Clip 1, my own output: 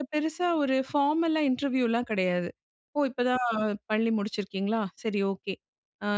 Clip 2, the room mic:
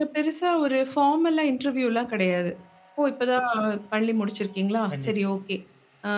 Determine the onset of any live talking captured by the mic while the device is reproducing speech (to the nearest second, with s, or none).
5 s